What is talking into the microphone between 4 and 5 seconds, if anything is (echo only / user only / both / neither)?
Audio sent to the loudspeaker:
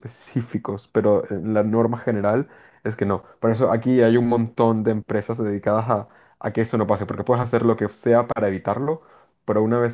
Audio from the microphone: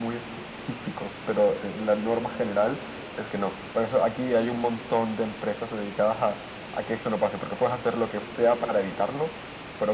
echo only